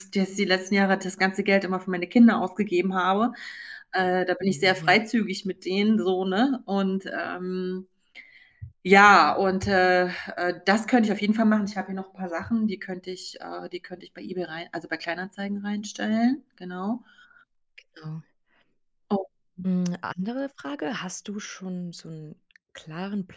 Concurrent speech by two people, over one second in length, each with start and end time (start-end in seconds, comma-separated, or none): none